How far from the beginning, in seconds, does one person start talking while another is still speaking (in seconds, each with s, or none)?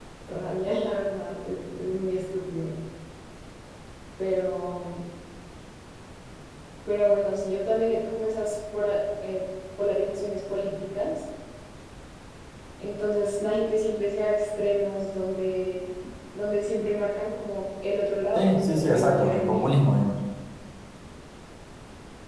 18.4 s